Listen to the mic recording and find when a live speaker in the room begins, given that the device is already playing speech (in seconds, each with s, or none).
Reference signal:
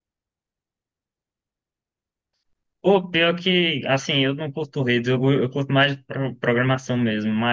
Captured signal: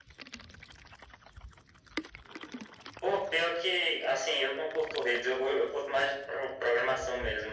none